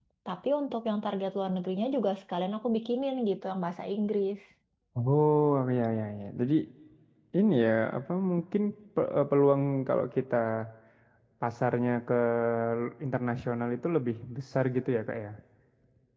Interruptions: none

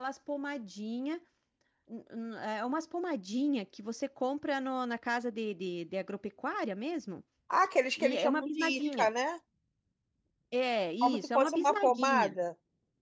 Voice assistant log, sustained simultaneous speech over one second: present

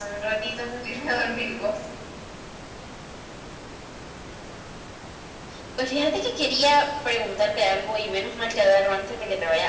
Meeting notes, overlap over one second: none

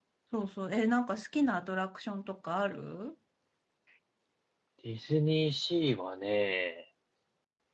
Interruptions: none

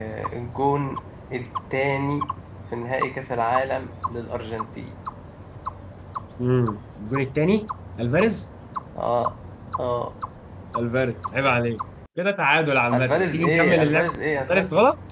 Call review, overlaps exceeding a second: present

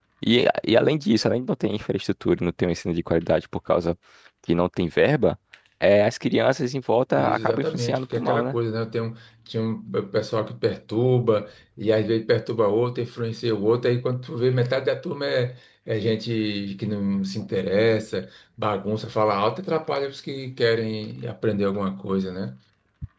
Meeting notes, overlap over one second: present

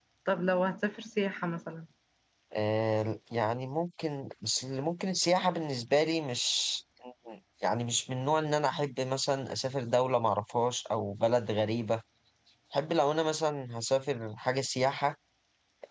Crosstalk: none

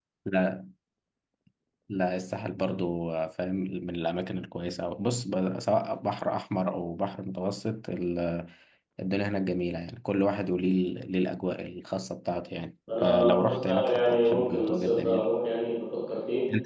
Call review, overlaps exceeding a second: present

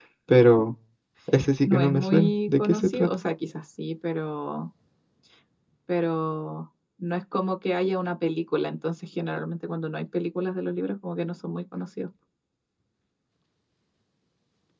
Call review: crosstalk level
present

